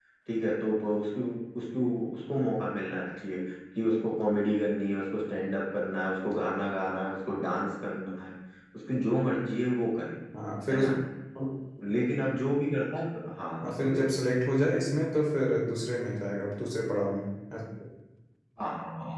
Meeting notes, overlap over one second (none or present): none